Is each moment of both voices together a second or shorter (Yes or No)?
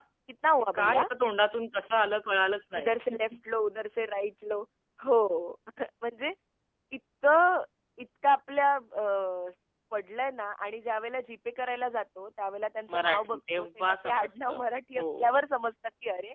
No